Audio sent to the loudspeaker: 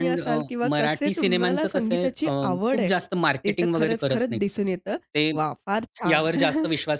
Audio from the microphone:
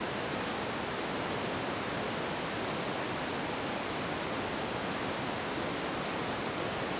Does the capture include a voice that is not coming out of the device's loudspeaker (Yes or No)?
No